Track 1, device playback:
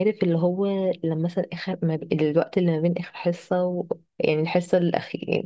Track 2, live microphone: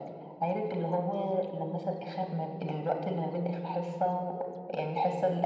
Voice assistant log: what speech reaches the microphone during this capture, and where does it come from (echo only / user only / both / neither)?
echo only